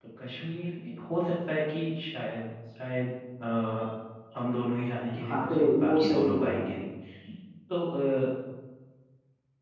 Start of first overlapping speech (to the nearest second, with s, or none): 5 s